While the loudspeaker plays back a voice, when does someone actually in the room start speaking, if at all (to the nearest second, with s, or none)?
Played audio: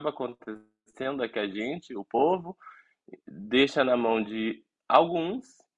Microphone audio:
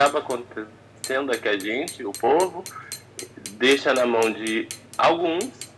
none